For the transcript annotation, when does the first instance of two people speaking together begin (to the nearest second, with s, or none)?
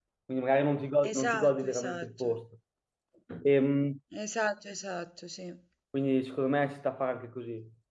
1 s